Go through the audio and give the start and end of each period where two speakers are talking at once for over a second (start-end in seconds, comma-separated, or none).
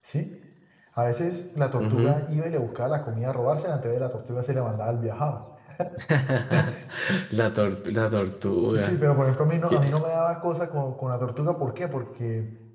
none